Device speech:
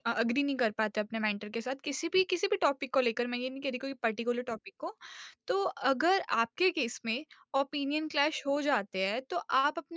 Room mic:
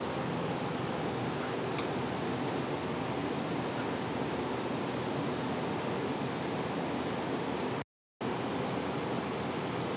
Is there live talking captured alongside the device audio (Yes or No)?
No